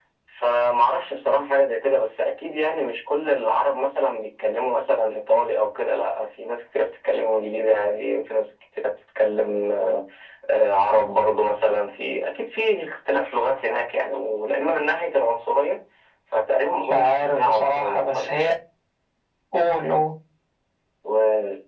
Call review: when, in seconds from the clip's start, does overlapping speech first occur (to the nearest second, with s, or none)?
17 s